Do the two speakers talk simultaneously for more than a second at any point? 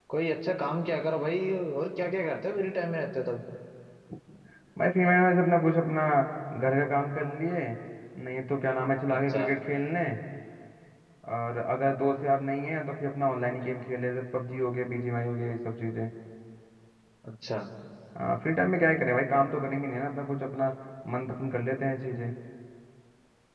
No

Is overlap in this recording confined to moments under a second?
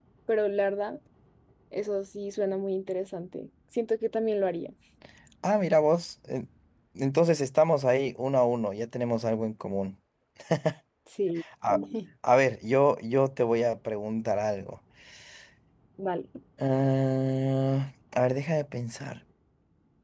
Yes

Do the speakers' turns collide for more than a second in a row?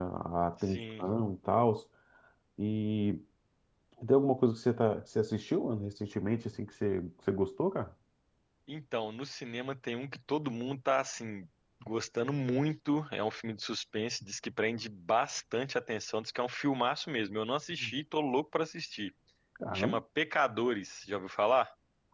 No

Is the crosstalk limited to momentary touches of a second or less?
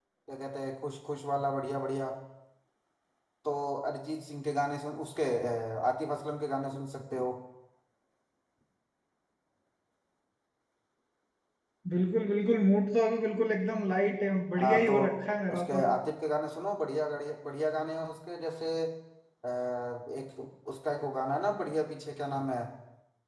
Yes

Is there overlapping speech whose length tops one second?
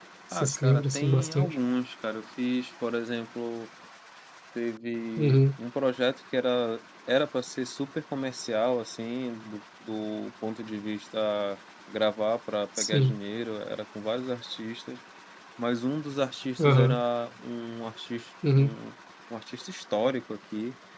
Yes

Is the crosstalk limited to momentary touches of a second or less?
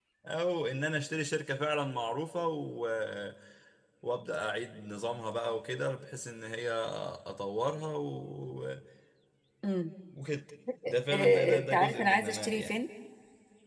No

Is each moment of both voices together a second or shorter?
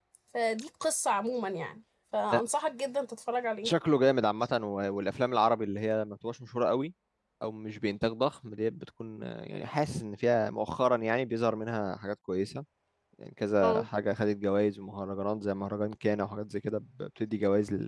Yes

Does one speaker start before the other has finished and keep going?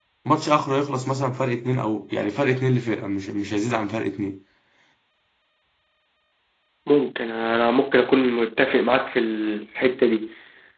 No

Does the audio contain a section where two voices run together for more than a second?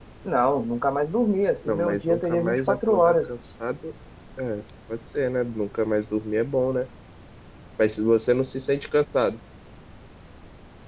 Yes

